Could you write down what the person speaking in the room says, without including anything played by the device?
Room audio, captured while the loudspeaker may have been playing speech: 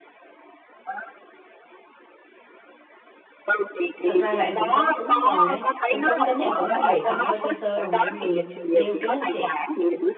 thật ra là em cũng sắm kính rồi đấy em sắm kính em cũng bị cận hơi sơ sơ rồi mà em lười đeo kính lắm chị

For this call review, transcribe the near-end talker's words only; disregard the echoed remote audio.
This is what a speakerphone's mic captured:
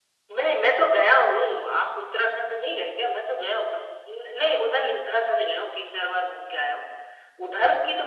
none

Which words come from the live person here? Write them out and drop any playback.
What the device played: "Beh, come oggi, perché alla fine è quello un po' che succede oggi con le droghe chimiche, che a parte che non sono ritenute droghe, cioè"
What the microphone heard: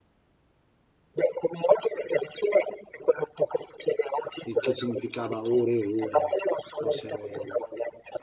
il che significava ore e ore, cose,

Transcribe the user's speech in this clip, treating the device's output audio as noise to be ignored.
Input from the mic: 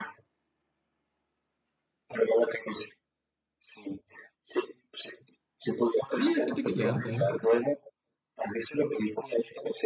Sí, hay gente que le harta, ¿eh?

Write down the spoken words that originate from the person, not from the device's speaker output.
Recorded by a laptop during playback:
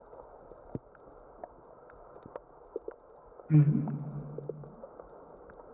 ujú.

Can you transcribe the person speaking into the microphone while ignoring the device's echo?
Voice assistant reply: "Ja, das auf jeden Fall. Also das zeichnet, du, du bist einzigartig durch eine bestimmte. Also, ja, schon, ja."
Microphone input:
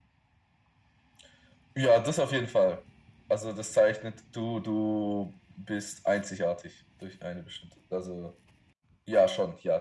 none

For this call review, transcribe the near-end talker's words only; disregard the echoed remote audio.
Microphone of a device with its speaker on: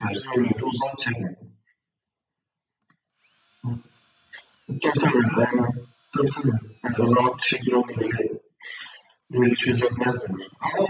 none

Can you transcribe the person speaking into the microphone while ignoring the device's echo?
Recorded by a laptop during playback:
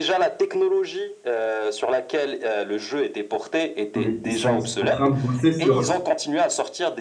mais ils sont en train de bosser sur,

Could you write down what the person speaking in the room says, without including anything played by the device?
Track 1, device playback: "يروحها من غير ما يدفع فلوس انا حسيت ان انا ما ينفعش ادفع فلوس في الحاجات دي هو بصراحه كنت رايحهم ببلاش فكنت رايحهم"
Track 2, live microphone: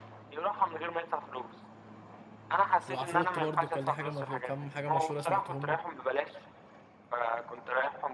وعفروتو برضو كان ليه حاجه مش... كام حاجه مشهوره سمعتهم له

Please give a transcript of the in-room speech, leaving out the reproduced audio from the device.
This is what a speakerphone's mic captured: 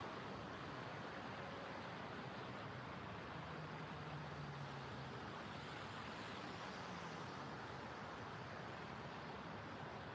none

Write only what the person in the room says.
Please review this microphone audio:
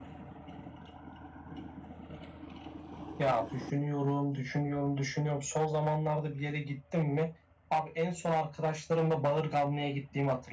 none

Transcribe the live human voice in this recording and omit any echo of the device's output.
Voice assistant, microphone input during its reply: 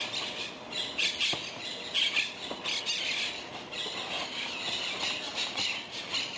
none

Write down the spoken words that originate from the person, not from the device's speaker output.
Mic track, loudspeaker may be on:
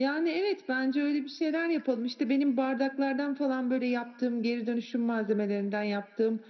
none

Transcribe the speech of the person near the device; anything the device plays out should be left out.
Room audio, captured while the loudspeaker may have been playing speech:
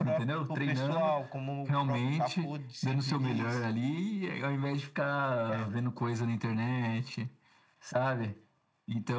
none

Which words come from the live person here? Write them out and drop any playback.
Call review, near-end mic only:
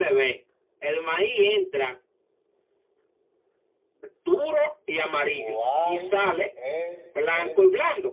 ¿Cuál es el

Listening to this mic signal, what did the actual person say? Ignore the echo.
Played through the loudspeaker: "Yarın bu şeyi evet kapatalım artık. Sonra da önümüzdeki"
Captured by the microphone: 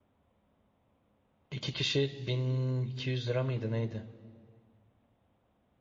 İki kişi 1200 lira mıydı neydi?

